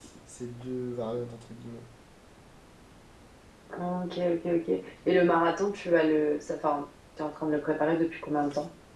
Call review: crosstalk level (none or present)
none